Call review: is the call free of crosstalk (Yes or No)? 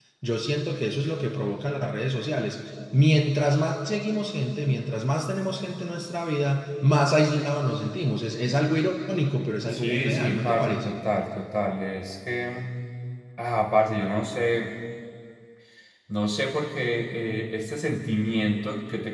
No